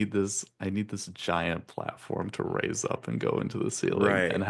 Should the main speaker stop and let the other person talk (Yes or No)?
No